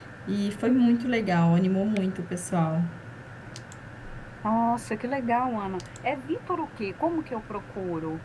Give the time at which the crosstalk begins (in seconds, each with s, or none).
none